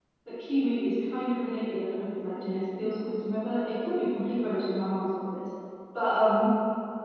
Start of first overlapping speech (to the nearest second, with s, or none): none